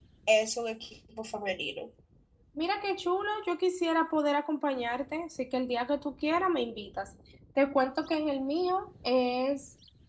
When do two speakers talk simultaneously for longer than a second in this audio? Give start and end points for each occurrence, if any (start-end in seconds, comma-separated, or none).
none